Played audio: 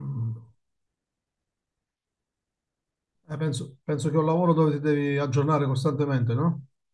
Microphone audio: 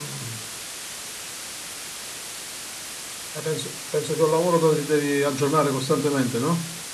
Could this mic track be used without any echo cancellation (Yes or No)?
No